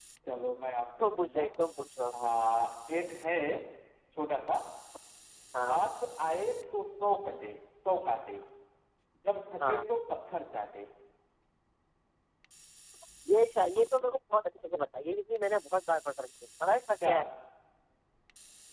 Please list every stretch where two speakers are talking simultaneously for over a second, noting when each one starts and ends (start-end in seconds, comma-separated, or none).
none